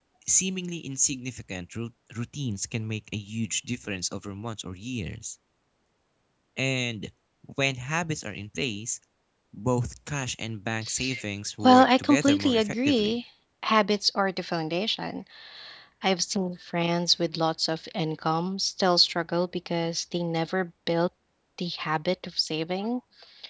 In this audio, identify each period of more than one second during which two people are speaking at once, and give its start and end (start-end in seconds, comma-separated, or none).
11.6-13.2